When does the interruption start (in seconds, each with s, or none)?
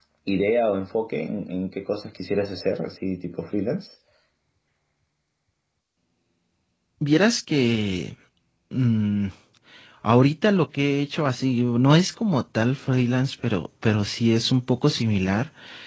none